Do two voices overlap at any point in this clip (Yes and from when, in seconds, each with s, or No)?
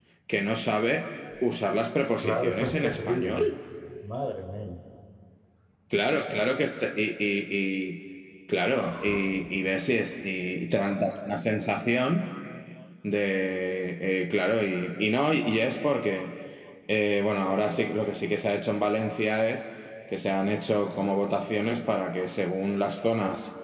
Yes, from 2.2 s